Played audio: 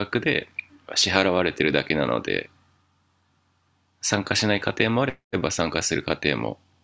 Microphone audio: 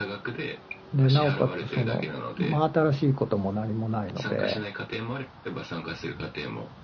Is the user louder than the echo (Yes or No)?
Yes